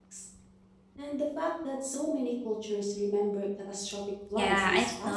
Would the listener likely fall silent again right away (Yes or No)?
No